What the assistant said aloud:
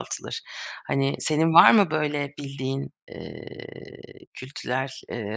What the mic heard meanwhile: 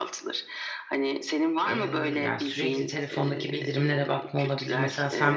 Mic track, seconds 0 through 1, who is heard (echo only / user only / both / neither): echo only